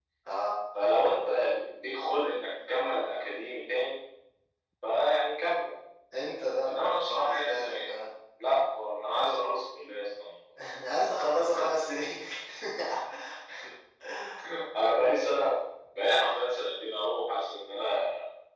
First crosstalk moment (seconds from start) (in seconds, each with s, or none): 6.6 s